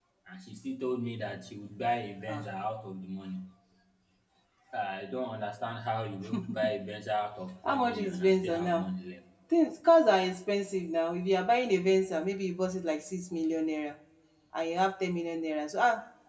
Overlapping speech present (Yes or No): Yes